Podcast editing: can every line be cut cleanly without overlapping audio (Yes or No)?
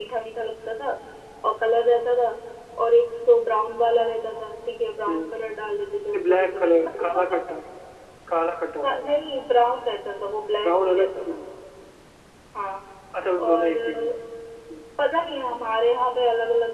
No